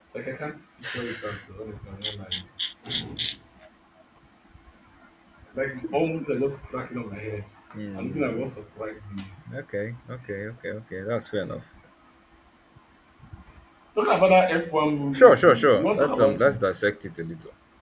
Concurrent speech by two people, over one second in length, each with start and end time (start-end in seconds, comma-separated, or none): 15.1-16.7